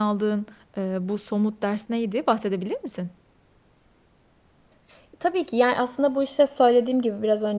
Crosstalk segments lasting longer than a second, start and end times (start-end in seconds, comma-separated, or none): none